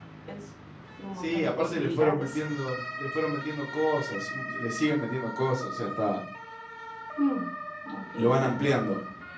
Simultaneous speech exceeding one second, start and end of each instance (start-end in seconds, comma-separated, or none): 1.2-2.4